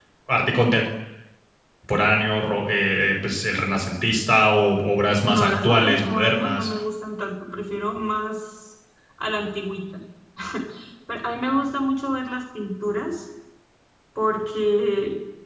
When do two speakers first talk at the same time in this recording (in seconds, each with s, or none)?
5.2 s